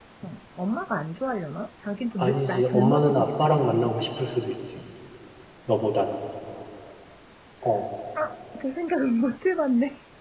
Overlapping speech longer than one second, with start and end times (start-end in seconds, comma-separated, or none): 2.2-4.1